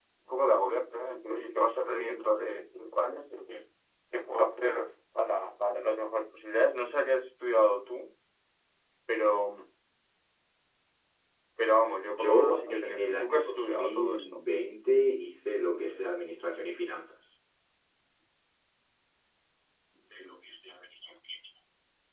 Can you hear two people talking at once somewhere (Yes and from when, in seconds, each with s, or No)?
Yes, from 12.1 s